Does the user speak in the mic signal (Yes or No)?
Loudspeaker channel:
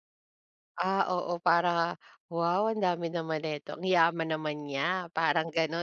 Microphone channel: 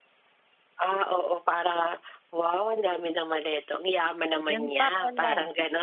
Yes